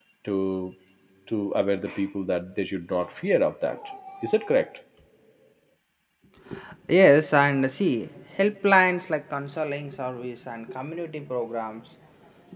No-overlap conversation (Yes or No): Yes